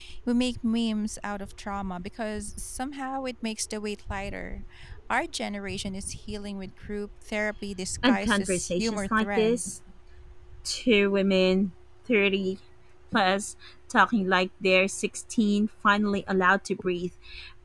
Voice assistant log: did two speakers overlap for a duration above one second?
Yes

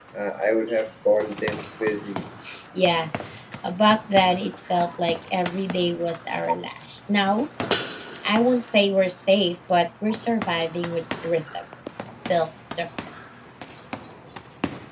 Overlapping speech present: No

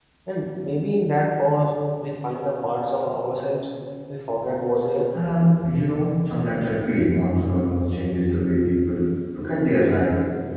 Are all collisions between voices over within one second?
Yes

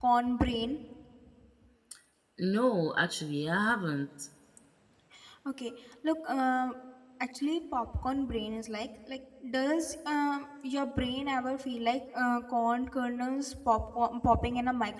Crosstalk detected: No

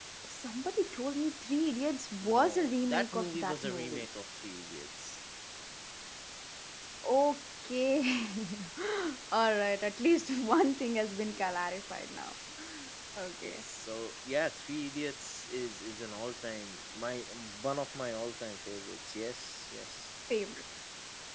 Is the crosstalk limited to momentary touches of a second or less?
No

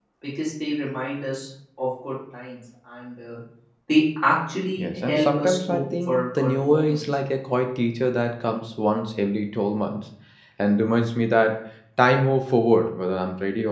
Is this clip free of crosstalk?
No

